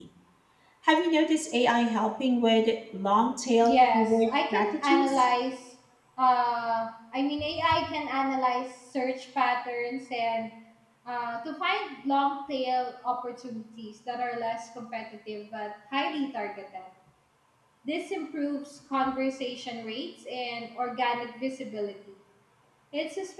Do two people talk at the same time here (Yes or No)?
Yes